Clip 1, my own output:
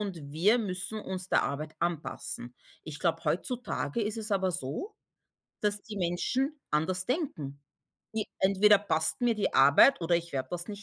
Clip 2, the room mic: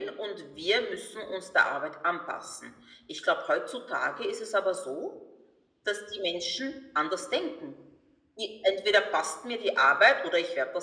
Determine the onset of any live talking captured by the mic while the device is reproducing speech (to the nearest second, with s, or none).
none